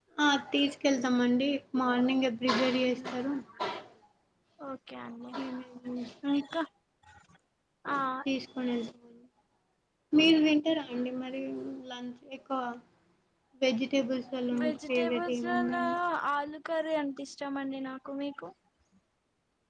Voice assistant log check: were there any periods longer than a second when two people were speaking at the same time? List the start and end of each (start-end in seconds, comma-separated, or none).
14.6-15.8